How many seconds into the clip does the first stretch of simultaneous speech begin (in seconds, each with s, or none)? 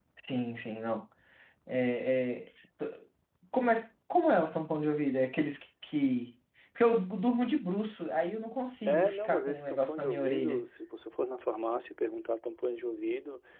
8.9 s